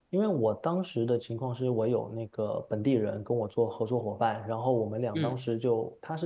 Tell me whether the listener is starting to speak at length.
No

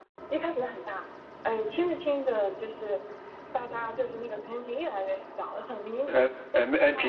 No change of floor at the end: No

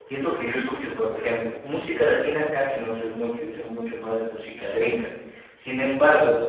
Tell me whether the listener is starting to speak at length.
No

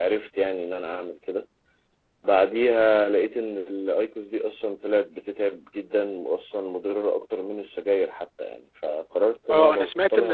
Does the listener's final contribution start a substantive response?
Yes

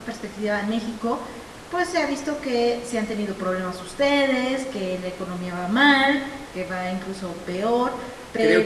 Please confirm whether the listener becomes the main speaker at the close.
Yes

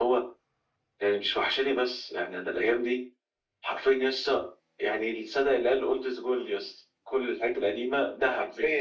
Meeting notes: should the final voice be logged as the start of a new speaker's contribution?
Yes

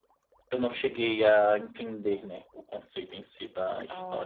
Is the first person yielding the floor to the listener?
Yes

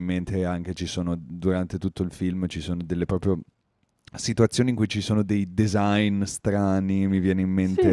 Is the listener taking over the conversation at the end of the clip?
Yes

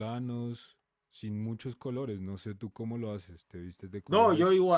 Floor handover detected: Yes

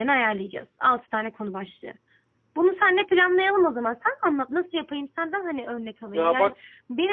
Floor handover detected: No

